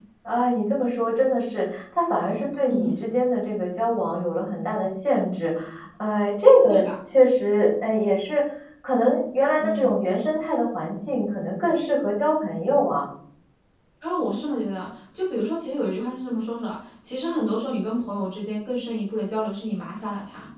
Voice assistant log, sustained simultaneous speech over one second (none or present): none